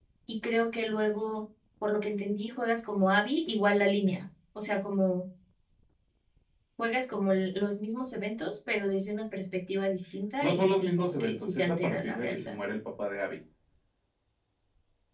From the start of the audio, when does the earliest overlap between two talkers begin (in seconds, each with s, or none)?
10.4 s